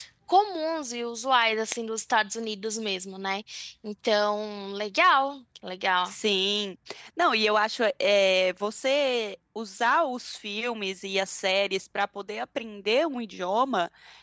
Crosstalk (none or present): none